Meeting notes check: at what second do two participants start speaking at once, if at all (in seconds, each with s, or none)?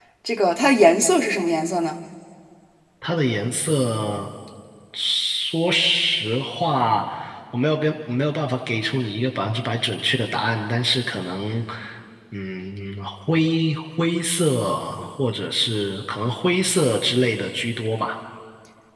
none